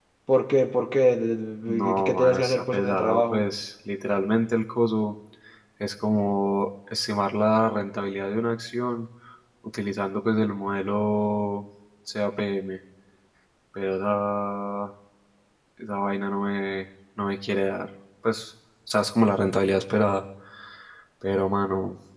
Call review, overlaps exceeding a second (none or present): present